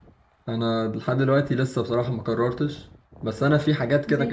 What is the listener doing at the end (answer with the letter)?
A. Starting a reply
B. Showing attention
B